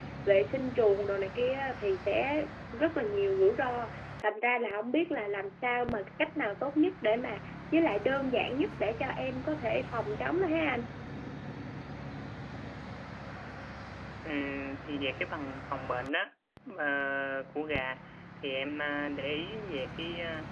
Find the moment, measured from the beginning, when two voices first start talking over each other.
none

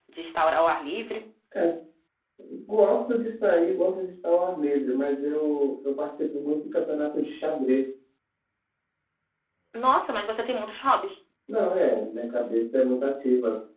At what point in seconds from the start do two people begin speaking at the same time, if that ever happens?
none

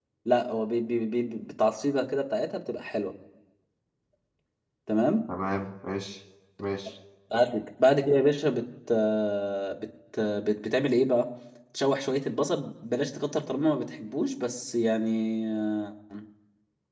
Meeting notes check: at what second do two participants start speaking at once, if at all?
none

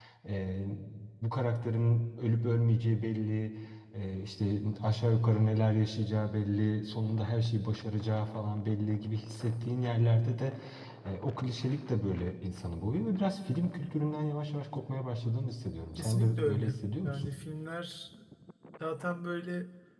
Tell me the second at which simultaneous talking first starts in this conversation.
16 s

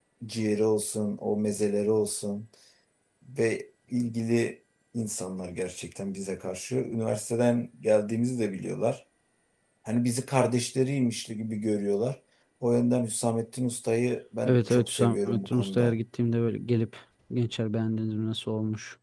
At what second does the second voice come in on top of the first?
14 s

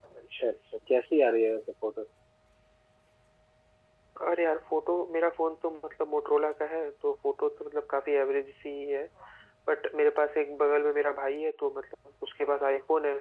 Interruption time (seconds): none

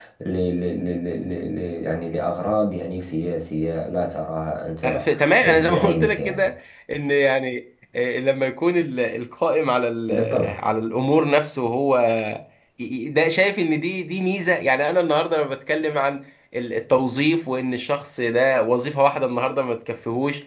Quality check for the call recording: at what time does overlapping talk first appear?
5 s

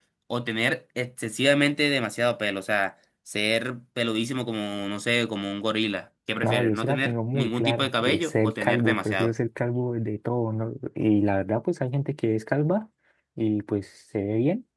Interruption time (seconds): 6 s

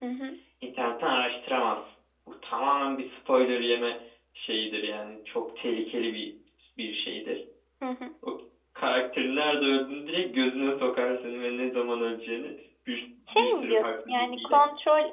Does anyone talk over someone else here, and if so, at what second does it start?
13 s

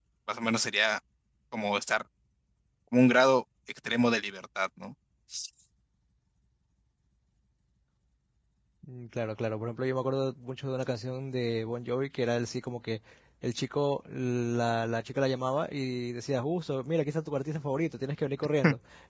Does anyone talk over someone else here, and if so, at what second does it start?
none

